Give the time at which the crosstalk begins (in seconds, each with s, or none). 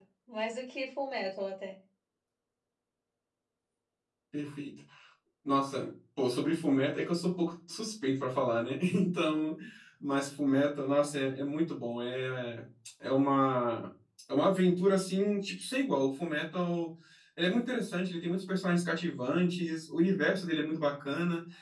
none